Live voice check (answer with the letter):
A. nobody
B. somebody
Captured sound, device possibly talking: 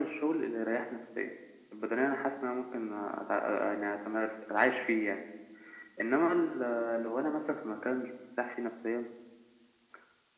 A